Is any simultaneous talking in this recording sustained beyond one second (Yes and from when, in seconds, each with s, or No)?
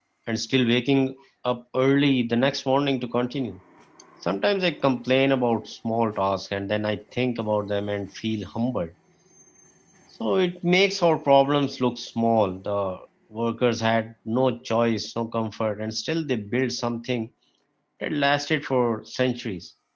No